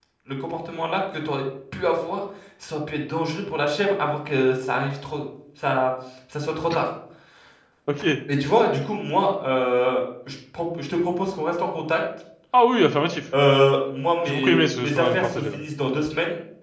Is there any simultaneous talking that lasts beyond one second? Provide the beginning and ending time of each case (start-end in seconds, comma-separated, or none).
14.2-15.6